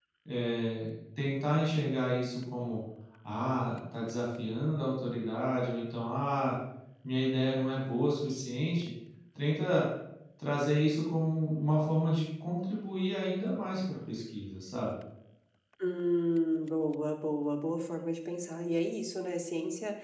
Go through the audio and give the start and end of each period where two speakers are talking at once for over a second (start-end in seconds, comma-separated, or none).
none